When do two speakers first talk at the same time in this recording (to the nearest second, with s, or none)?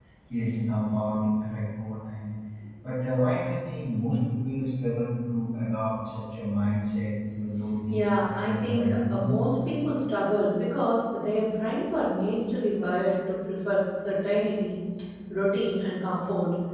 8 s